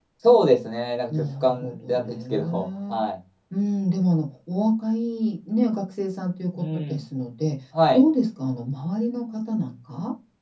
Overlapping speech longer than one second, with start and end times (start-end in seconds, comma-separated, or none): 1.1-2.4